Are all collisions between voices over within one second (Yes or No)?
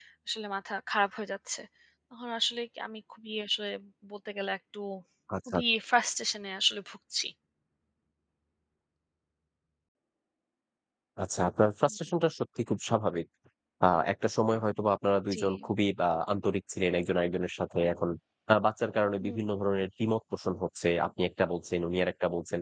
Yes